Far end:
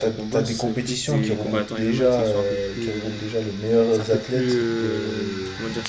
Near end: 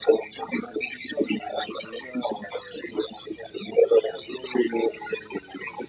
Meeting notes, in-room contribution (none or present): none